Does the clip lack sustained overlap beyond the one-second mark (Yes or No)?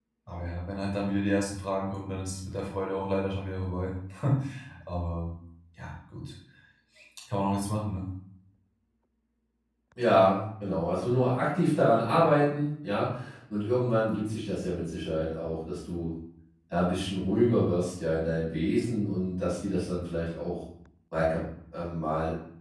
Yes